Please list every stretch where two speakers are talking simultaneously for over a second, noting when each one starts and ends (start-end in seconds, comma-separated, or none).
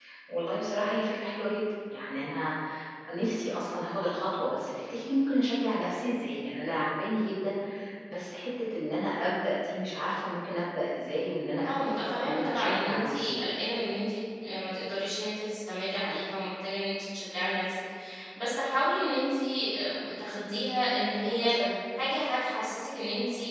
11.7-13.4